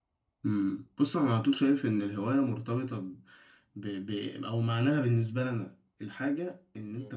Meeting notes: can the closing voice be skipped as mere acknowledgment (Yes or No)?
Yes